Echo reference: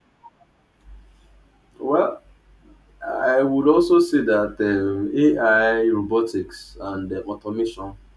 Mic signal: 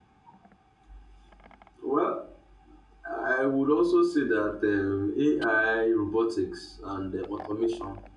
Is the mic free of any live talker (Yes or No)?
Yes